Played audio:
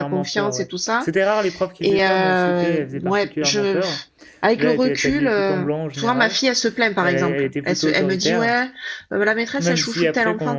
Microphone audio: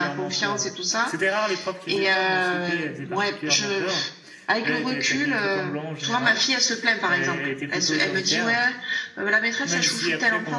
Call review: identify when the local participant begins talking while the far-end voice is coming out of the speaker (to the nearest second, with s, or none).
none